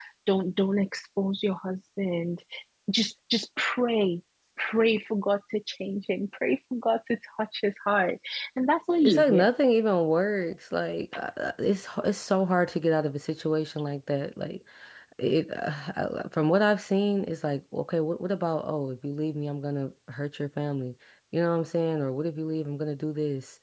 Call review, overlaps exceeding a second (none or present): none